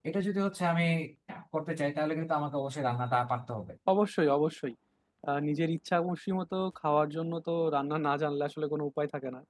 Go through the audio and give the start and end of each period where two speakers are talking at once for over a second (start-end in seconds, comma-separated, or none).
none